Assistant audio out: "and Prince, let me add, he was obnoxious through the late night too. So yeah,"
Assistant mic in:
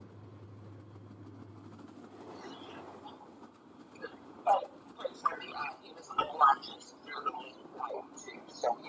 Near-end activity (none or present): none